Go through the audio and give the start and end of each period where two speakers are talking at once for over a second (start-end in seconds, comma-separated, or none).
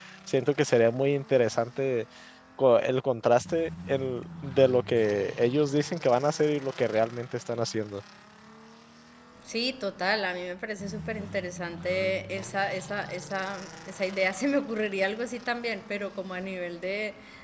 none